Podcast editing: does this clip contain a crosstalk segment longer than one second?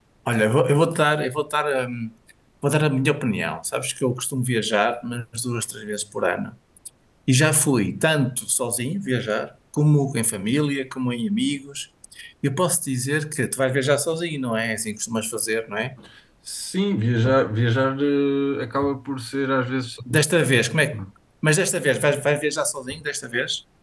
No

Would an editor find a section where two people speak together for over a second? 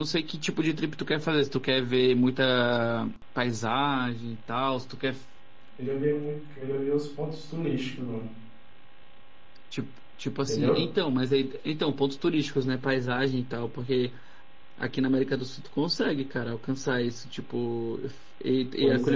No

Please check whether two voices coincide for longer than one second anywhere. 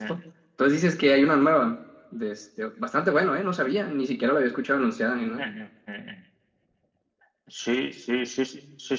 No

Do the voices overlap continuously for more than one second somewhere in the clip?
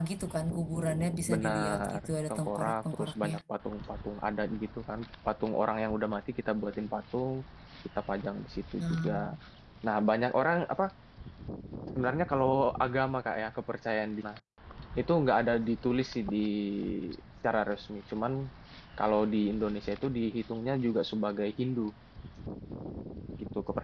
Yes, from 1.3 s

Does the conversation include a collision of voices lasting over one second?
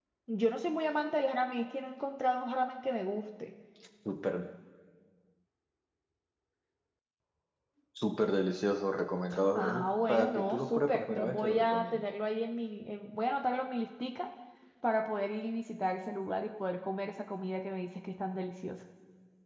Yes, from 9.3 s

